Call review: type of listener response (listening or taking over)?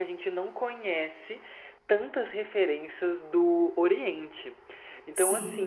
listening